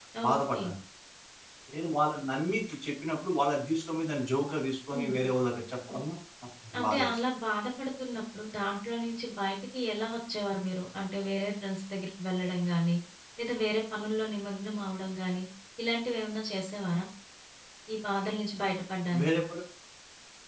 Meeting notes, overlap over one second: none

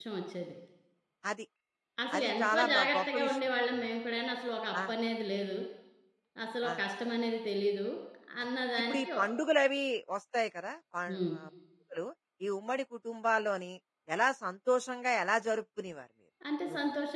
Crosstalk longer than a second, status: present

